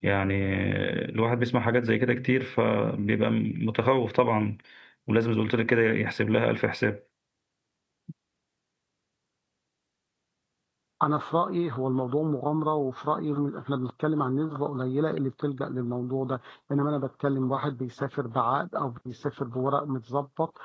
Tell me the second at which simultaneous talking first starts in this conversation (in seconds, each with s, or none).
none